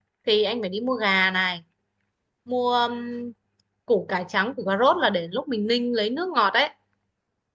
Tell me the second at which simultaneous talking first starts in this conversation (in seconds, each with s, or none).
none